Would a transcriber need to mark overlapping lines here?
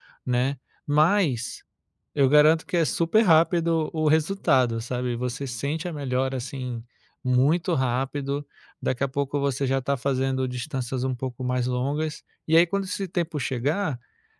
No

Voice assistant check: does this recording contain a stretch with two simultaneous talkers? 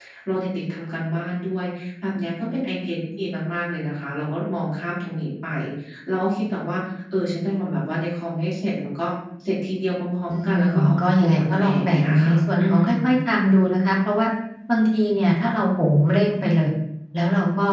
Yes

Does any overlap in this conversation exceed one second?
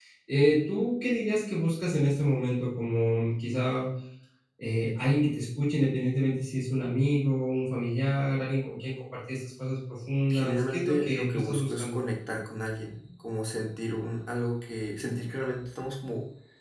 Yes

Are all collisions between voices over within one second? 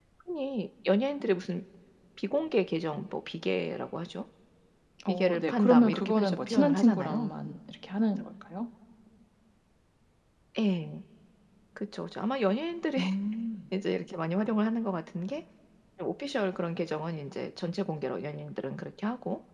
No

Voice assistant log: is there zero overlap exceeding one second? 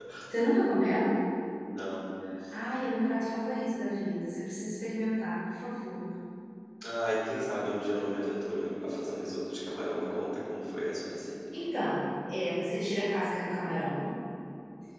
Yes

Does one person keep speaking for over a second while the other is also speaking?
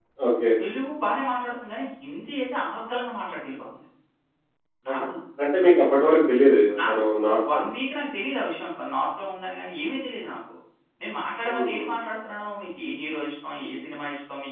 No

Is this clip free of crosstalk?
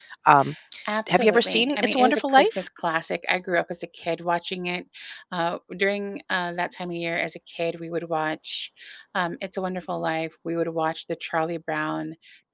No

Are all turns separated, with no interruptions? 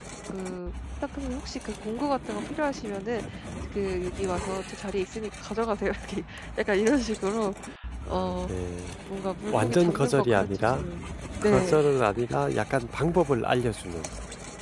No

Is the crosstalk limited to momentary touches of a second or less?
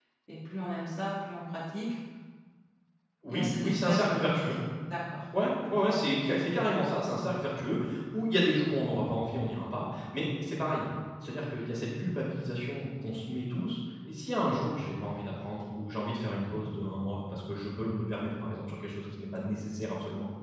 No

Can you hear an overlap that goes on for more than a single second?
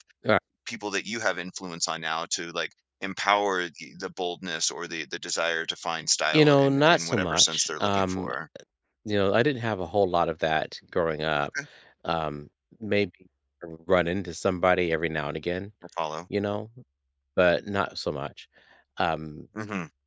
Yes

